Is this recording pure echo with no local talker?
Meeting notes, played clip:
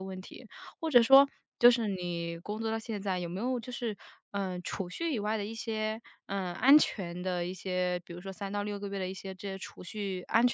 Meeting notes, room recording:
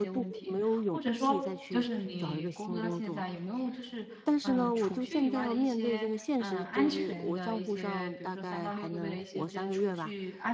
No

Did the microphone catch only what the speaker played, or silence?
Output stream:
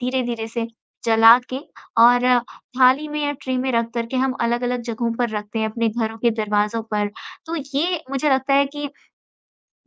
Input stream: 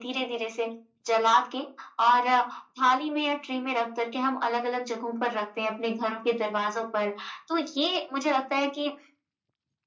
Yes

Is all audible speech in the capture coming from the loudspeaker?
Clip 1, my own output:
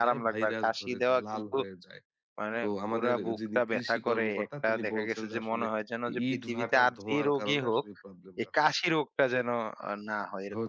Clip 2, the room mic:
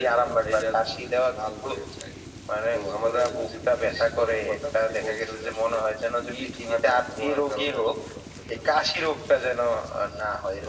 Yes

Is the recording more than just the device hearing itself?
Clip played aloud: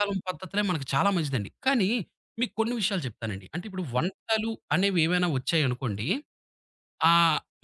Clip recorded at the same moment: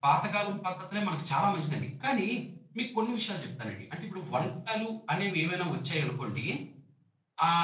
No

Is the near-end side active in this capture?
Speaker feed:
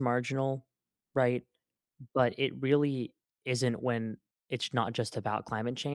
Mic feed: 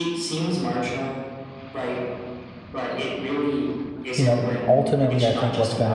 Yes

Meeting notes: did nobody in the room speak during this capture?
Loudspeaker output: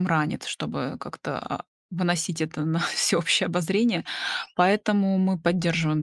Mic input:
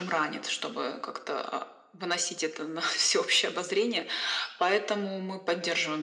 Yes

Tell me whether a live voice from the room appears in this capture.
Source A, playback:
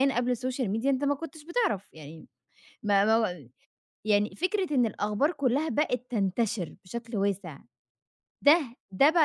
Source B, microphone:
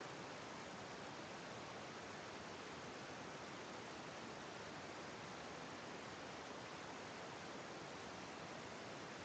No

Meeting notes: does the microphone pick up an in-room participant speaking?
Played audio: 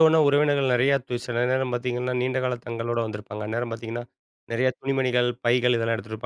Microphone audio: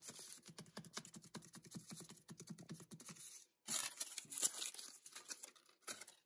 No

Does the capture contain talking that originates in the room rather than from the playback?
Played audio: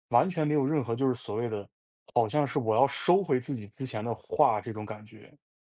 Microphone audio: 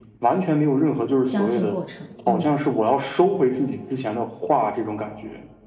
Yes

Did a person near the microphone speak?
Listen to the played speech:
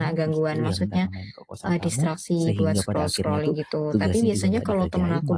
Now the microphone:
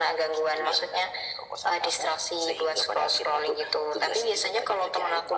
No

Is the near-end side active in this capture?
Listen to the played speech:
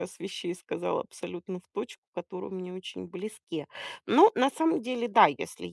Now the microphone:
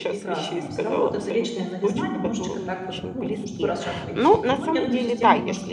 Yes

